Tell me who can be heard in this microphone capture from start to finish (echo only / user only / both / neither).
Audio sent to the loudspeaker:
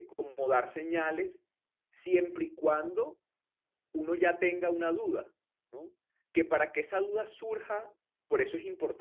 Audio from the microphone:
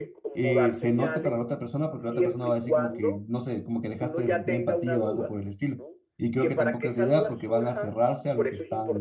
both